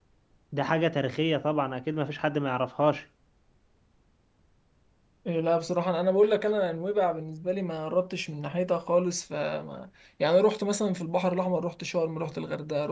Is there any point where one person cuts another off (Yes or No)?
No